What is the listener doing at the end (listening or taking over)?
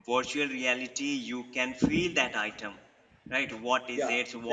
listening